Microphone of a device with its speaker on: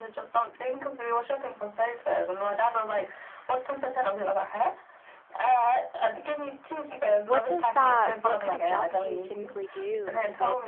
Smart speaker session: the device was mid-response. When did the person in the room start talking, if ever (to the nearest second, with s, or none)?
7 s